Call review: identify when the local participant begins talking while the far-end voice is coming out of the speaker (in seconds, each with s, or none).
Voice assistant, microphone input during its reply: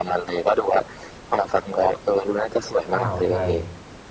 2.9 s